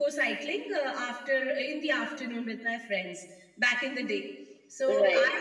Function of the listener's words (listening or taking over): listening